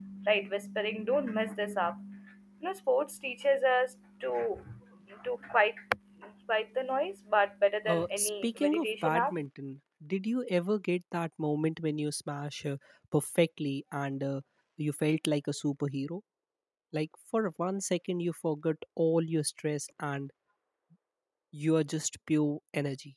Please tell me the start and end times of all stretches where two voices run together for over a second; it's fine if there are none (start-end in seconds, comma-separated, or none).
7.8-9.3